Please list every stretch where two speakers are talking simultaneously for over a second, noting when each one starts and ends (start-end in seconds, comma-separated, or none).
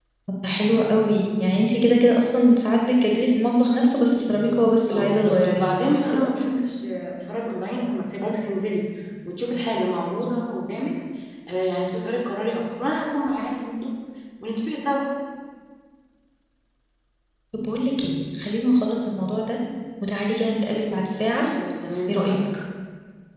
4.9-6.3